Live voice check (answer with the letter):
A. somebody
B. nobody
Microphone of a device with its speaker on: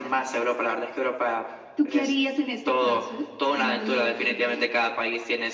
B